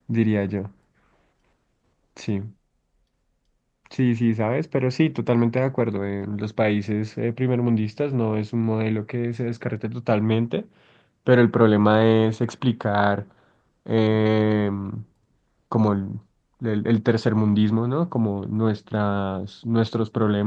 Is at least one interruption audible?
No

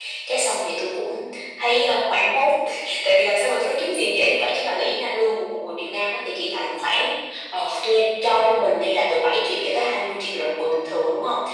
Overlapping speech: No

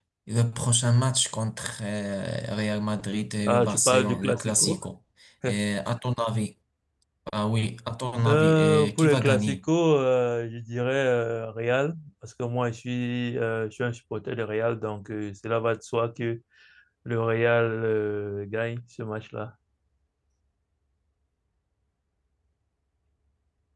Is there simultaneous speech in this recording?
Yes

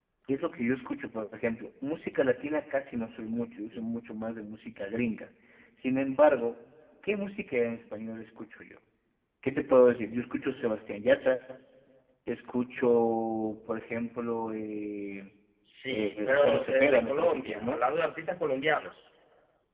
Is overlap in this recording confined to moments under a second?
No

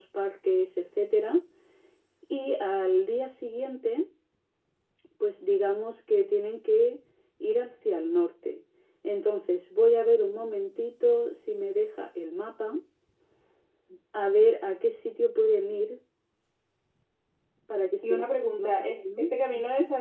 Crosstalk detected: Yes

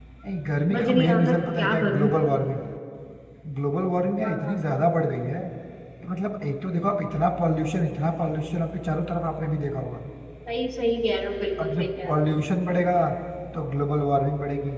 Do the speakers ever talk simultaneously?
Yes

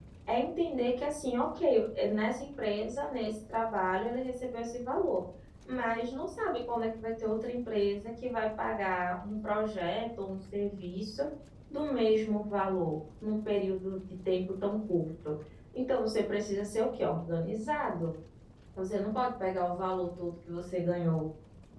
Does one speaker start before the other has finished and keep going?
No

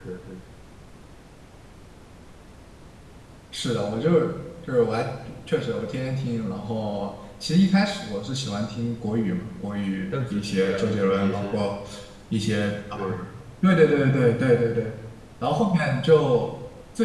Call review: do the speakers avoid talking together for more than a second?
No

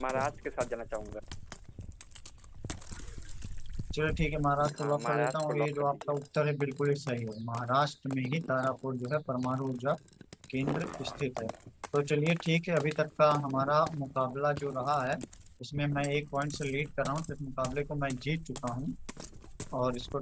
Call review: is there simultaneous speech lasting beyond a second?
Yes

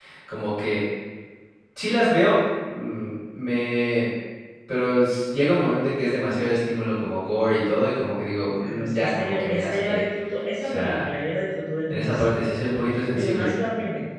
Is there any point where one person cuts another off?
Yes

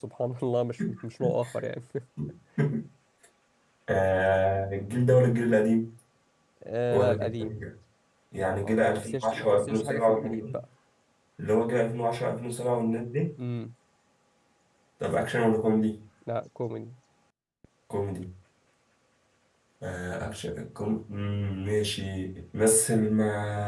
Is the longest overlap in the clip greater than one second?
Yes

